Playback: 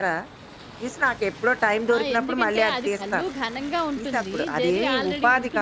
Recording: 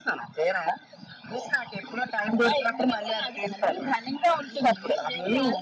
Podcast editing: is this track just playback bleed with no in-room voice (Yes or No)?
Yes